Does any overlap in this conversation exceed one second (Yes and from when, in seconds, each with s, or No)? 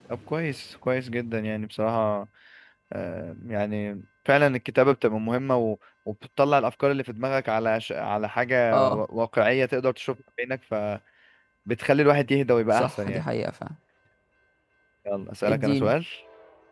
No